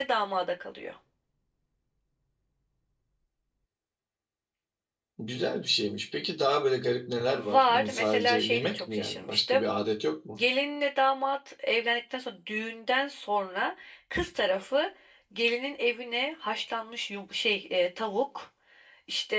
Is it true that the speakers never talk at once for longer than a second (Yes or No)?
No